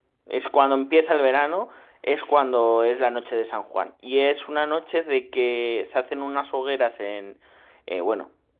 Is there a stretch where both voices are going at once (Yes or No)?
No